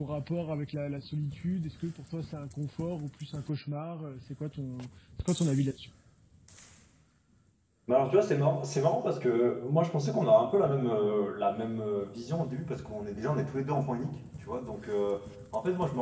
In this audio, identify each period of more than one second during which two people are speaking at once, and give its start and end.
none

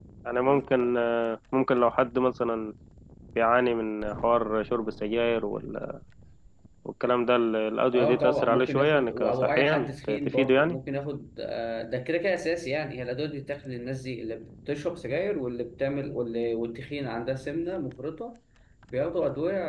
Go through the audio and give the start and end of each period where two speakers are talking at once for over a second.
7.9-10.8

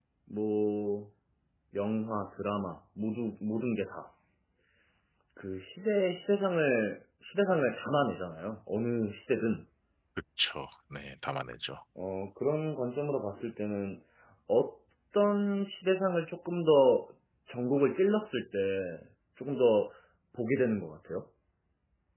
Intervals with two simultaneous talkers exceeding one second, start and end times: none

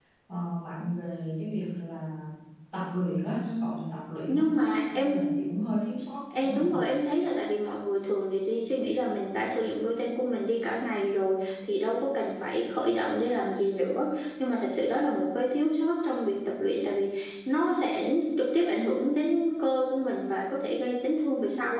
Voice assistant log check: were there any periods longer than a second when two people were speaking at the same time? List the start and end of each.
none

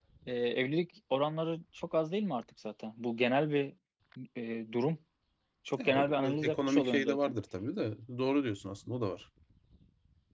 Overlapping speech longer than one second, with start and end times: 5.8-7.3

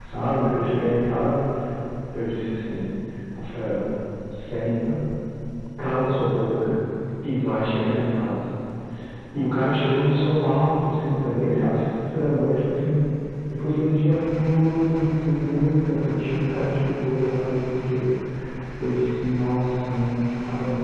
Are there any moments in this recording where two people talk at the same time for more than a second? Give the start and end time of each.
none

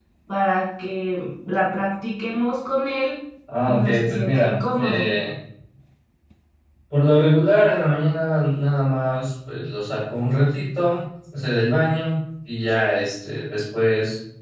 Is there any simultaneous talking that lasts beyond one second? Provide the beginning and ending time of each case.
3.7-5.1

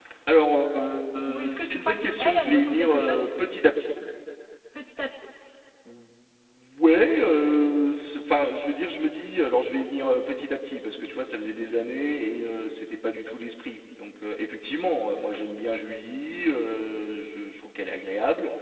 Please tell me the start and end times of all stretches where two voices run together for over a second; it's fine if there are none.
1.3-3.3

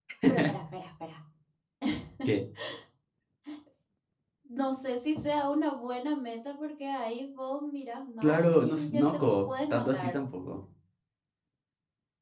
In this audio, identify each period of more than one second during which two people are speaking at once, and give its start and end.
8.2-10.2

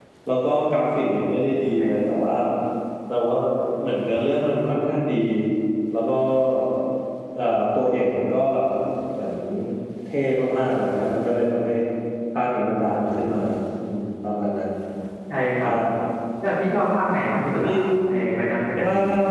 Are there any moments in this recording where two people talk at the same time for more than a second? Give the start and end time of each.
none

